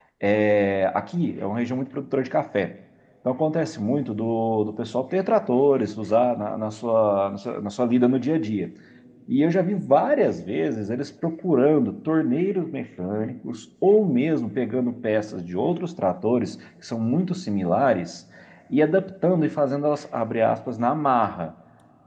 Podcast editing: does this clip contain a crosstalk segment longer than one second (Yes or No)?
No